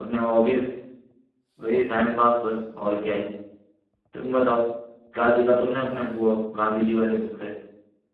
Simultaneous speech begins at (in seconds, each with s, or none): none